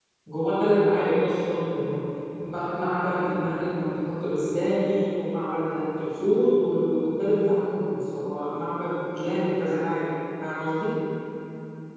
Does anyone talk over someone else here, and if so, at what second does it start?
none

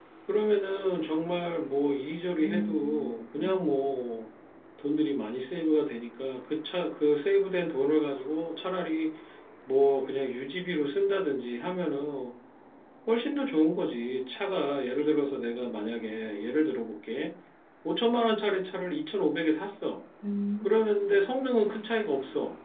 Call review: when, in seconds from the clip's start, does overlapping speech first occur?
2.4 s

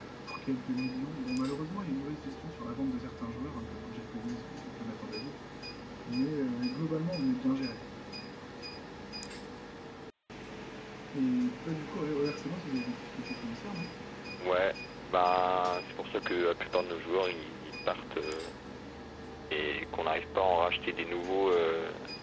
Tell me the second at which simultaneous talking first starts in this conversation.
none

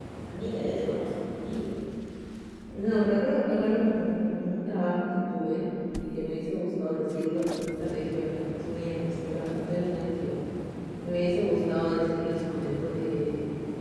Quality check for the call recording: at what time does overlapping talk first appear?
none

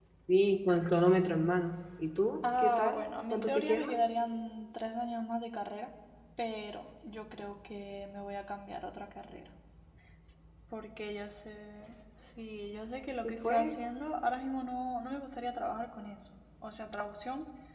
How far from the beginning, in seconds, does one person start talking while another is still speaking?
2.6 s

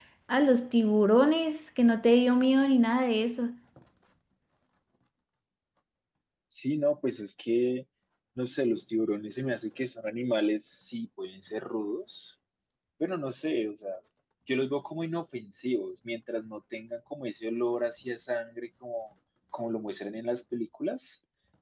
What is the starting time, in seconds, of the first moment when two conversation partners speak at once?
none

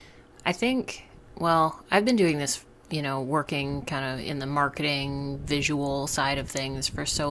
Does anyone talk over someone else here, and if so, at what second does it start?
none

